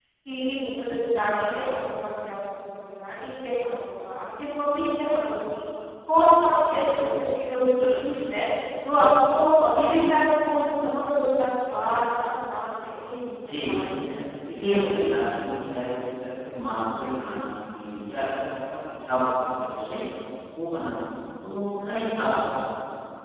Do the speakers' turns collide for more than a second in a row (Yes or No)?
No